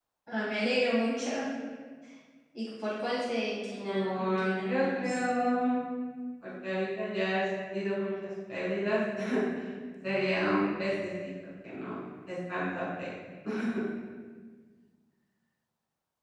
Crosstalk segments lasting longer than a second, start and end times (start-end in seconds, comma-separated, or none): 3.8-5.2